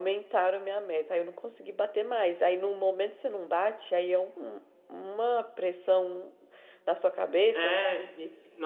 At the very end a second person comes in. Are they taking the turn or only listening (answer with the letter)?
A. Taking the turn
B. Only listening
A